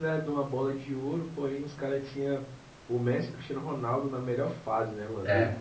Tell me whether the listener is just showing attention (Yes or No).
Yes